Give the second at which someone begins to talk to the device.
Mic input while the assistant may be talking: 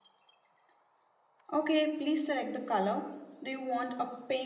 none

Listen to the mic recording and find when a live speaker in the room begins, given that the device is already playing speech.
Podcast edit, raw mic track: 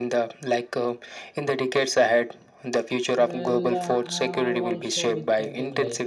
3.2 s

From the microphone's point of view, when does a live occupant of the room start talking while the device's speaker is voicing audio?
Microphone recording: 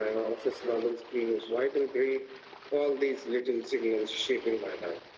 none

